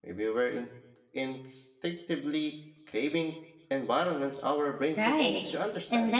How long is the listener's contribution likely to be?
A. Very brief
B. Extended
B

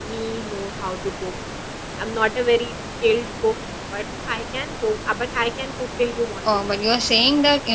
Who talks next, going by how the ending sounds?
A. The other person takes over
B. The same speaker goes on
A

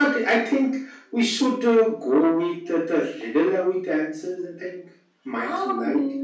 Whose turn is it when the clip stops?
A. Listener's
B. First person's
A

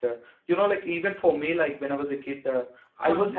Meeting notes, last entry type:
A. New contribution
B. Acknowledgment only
B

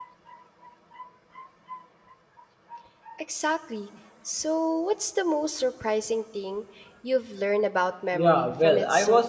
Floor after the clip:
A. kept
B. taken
B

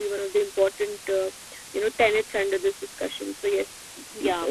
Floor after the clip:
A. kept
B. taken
B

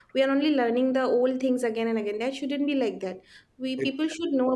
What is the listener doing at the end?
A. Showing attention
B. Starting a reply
A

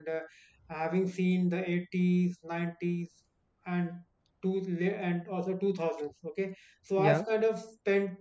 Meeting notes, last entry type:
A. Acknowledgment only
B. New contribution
A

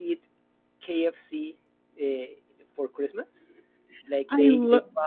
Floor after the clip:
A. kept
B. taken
A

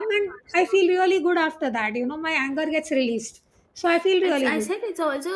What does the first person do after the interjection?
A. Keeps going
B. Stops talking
B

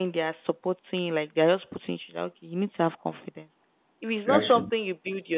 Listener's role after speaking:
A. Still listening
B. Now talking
A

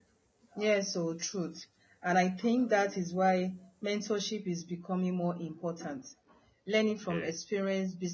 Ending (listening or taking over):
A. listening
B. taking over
A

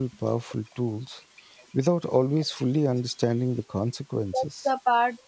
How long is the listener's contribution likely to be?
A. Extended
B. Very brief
A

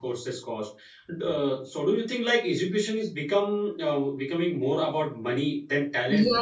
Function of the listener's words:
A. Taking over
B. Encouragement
A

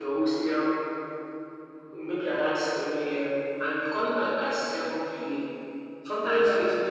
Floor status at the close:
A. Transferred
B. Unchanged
B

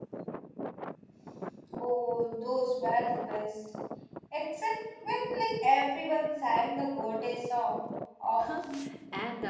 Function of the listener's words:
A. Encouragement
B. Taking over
B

